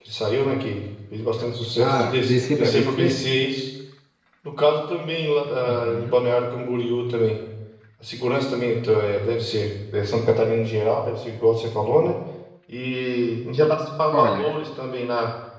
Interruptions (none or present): present